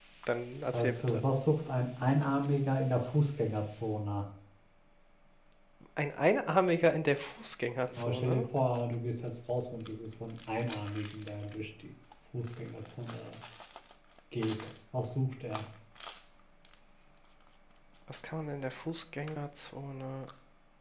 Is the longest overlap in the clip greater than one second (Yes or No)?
No